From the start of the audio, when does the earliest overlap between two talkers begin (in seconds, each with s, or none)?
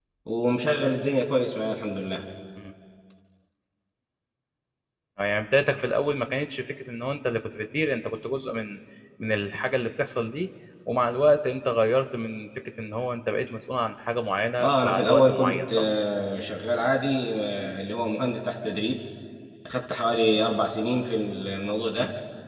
14.6 s